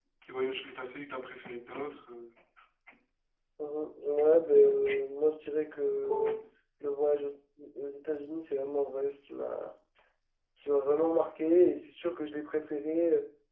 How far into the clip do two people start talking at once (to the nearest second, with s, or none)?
none